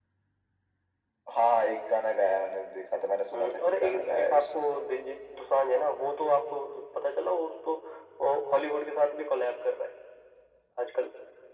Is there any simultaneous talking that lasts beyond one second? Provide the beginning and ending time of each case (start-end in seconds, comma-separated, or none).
3.3-4.6